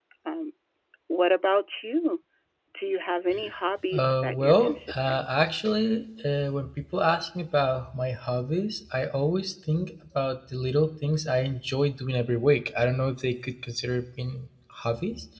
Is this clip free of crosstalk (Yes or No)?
No